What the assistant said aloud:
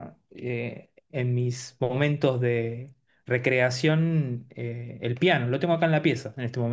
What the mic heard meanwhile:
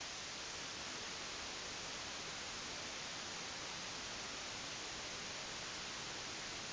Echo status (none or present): none